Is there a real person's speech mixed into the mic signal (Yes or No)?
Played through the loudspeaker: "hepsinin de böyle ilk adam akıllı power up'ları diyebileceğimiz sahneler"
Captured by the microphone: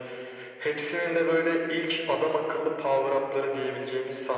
No